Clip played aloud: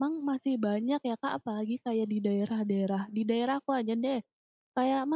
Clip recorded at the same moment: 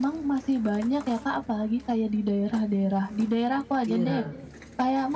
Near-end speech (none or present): present